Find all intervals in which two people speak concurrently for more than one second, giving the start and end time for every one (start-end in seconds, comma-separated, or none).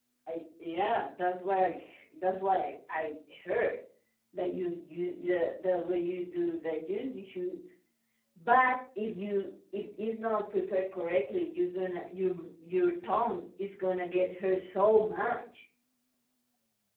none